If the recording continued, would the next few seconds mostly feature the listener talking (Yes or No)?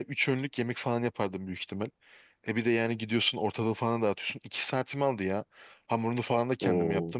No